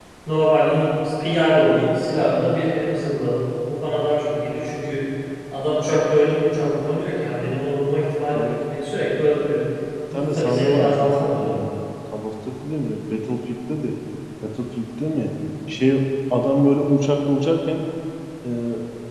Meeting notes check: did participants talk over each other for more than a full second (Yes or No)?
Yes